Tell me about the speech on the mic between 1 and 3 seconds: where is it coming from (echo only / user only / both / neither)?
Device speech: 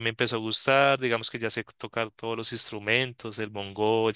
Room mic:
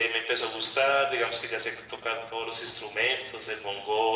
echo only